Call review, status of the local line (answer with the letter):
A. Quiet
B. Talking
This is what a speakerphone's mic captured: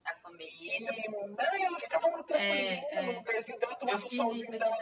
B